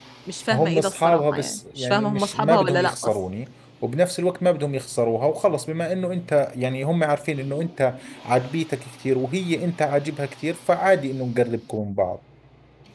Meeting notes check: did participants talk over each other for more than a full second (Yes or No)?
Yes